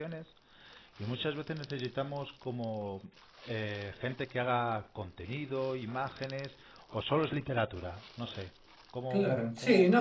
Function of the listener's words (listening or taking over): taking over